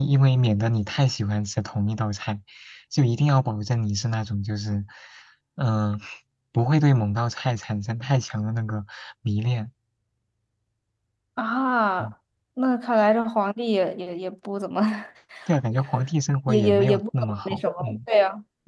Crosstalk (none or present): present